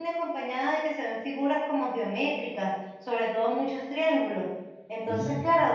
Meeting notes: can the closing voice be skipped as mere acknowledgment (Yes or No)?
Yes